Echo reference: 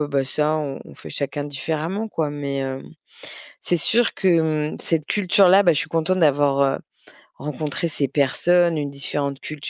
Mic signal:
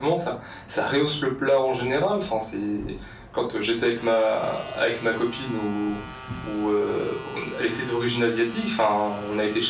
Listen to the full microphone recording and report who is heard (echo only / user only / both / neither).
user only